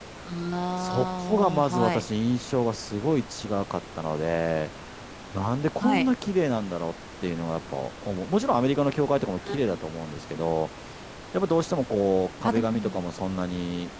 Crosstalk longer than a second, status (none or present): present